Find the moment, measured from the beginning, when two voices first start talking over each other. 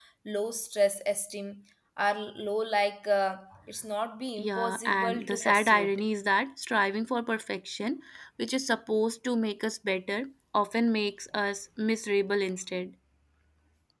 4 s

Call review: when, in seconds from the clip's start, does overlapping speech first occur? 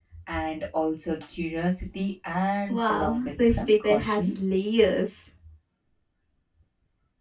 3 s

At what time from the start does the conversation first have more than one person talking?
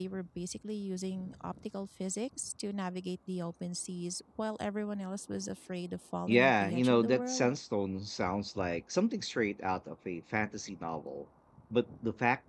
6 s

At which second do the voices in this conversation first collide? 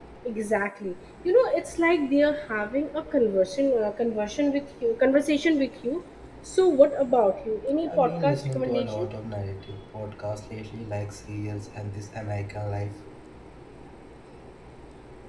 8 s

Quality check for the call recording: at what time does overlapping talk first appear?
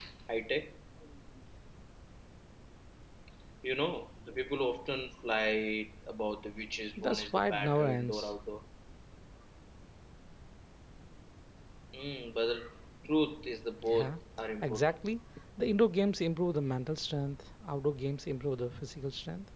7 s

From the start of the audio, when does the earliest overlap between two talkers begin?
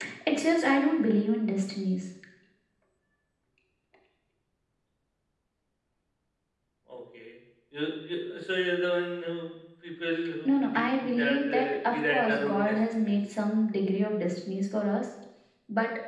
10 s

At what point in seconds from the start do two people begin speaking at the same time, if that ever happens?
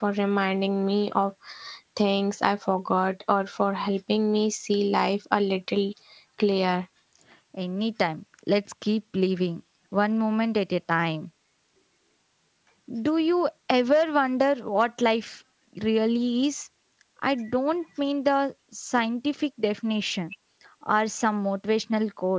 none

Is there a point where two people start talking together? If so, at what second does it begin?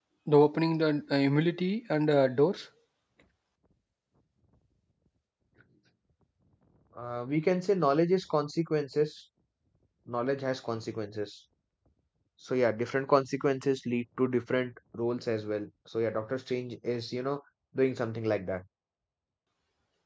none

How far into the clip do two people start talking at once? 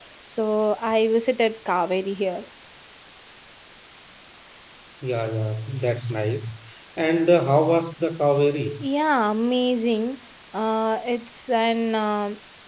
none

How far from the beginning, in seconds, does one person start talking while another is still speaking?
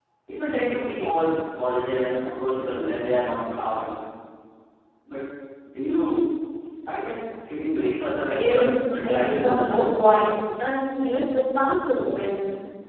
8 s

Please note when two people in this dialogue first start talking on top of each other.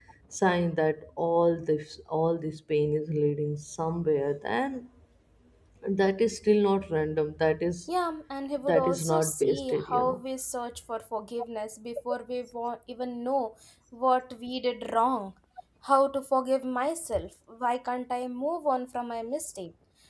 9 s

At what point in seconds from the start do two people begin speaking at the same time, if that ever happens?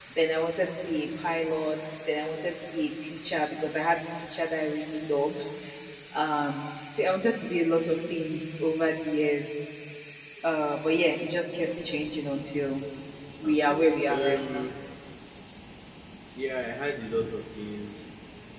13 s

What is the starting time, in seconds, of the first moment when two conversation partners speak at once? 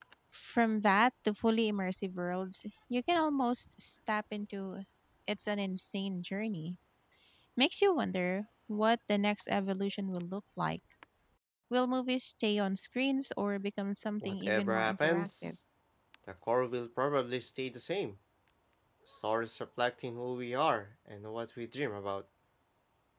14 s

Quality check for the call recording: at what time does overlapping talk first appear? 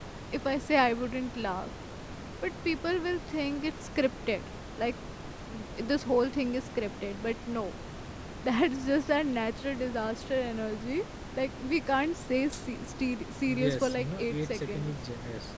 14 s

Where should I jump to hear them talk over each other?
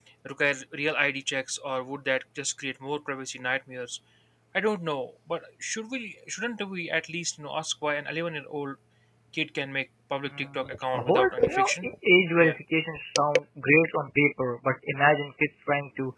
10 s

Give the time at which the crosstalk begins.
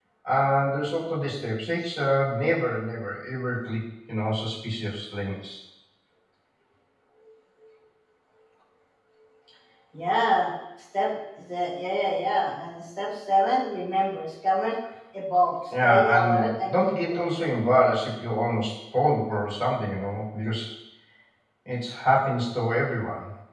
16 s

